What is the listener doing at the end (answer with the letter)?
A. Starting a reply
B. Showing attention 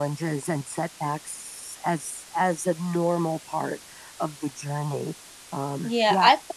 A